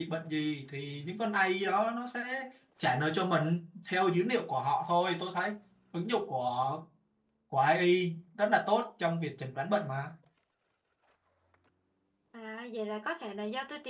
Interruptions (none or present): none